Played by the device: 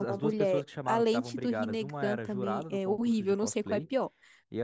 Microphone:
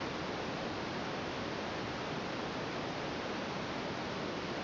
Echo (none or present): none